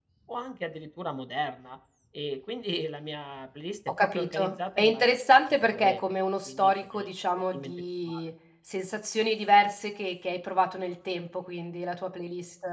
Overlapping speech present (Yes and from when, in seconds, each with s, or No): Yes, from 3.9 s